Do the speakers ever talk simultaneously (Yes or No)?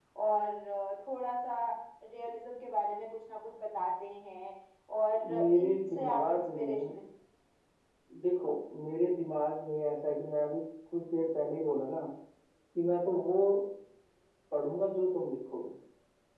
Yes